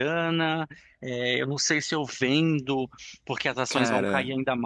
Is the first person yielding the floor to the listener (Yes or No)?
No